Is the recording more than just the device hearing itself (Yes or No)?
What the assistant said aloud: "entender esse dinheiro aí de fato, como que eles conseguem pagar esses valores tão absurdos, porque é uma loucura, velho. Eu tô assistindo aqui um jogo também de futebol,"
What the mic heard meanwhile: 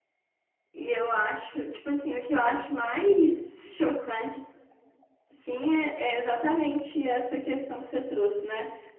Yes